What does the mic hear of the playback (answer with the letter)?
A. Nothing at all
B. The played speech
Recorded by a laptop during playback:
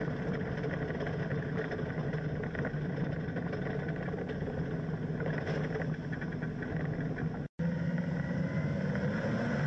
A